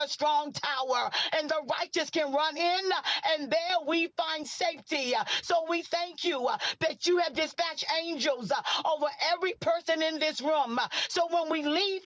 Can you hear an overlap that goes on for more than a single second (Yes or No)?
No